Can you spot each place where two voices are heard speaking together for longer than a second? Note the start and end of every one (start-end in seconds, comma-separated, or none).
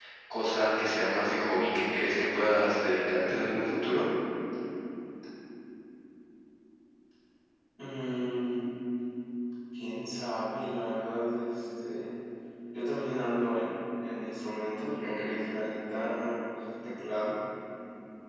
none